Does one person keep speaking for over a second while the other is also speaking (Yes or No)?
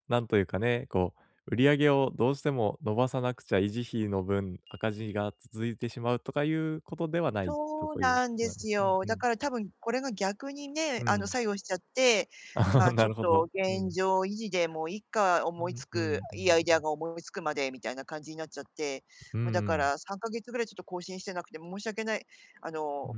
Yes